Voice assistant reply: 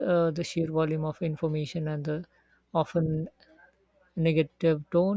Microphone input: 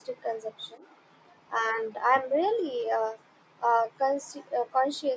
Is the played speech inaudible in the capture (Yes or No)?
Yes